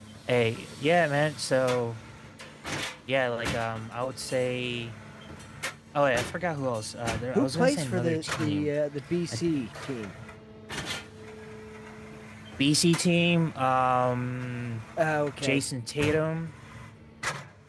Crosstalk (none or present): present